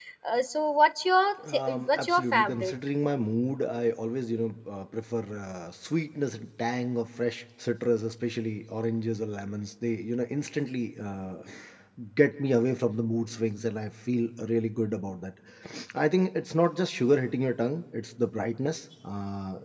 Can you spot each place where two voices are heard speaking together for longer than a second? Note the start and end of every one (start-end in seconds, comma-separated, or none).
1.5-2.7